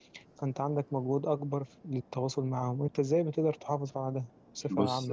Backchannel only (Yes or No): No